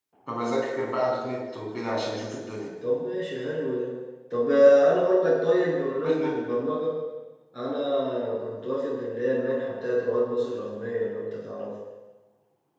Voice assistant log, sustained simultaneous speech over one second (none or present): none